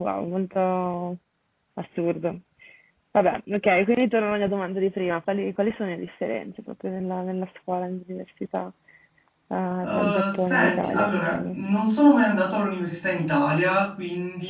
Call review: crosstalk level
present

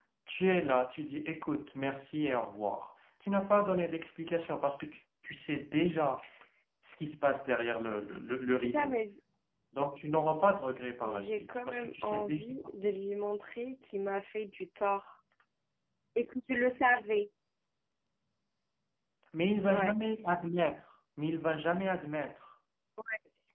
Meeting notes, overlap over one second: present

